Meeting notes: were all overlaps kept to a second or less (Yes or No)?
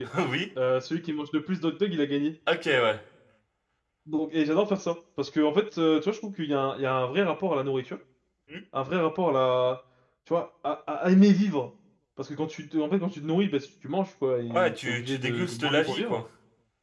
No